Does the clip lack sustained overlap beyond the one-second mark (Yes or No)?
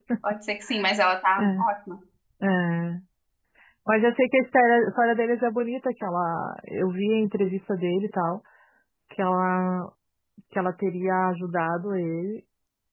Yes